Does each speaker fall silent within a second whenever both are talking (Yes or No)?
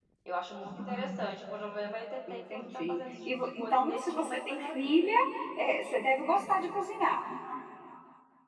No